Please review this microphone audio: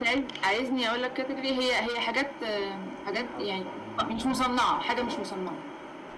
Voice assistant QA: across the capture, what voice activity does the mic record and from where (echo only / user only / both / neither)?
both